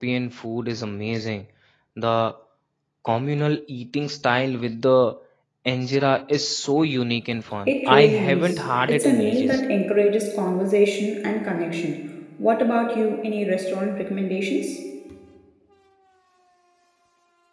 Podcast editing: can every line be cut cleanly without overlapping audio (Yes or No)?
No